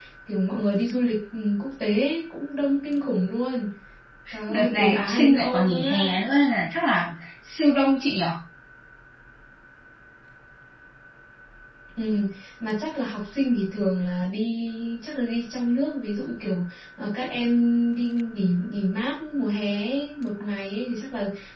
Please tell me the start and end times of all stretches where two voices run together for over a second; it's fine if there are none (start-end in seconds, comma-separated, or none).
4.5-6.1